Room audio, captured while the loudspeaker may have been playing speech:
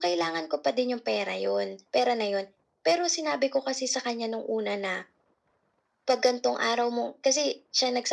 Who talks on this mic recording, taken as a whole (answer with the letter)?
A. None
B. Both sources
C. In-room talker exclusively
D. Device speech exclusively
D